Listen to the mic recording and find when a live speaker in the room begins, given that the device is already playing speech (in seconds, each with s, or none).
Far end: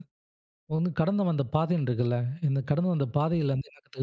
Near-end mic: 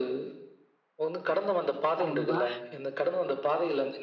2.0 s